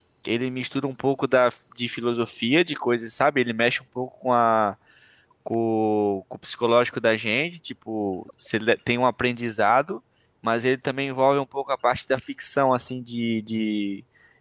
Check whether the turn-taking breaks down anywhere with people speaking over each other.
No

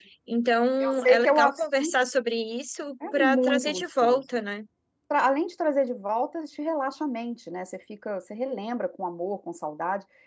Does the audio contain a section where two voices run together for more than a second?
Yes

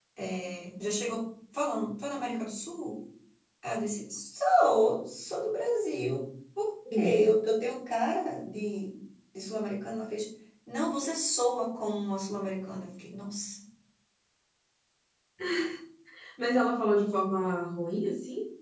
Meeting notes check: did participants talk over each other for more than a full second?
No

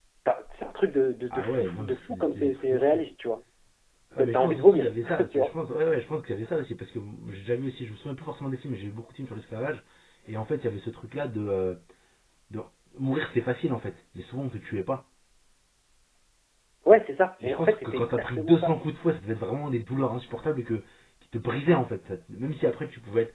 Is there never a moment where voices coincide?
No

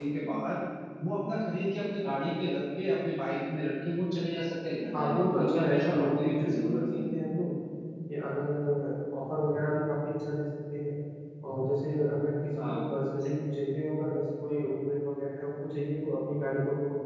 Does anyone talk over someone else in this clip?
Yes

